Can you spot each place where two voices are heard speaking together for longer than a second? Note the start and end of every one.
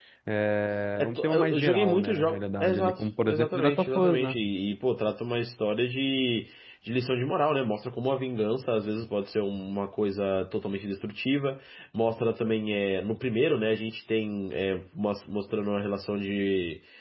1.0-4.4

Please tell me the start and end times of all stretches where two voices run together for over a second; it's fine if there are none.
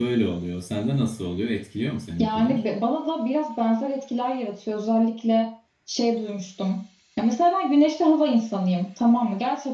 none

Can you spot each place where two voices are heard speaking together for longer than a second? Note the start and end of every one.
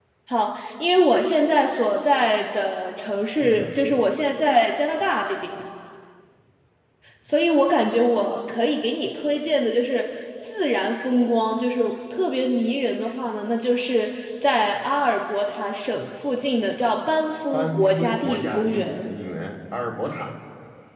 17.5-19.1

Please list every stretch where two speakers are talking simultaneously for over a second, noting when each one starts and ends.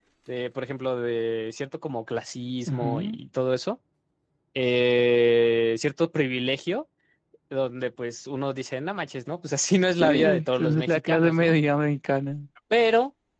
10.0-11.5

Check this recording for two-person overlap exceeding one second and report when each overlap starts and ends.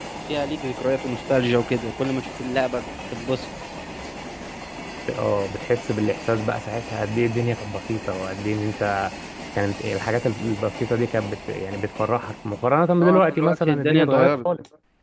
13.0-14.4

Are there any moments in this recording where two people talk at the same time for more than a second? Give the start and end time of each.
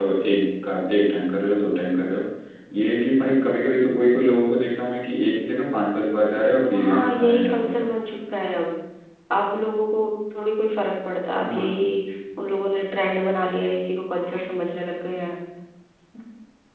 6.6-7.8

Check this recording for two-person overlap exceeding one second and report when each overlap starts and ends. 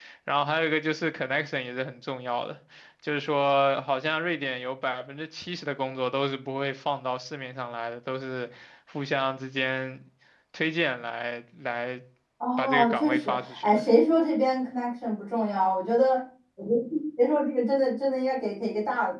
12.6-13.8

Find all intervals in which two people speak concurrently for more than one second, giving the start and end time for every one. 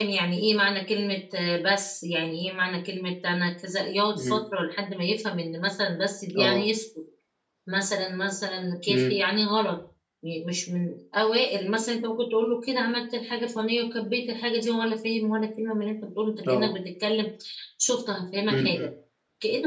none

